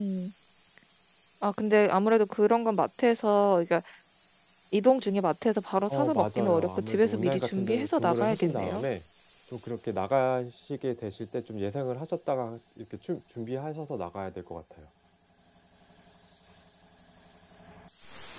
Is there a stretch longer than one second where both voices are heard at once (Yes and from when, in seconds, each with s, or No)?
Yes, from 5.9 s